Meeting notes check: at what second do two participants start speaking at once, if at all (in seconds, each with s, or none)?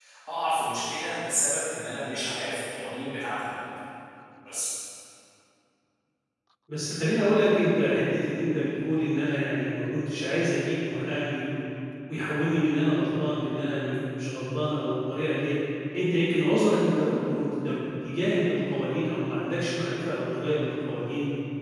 none